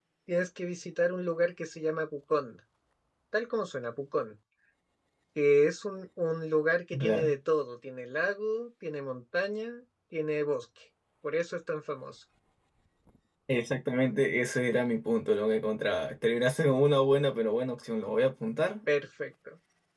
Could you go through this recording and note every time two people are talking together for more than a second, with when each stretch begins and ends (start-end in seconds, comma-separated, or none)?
none